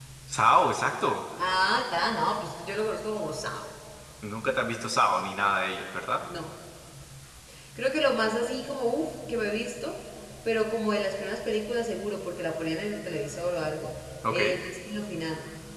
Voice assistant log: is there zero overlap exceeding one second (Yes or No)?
Yes